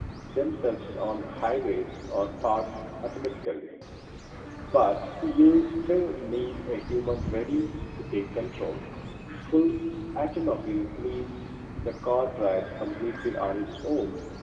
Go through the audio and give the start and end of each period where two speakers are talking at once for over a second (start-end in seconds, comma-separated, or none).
none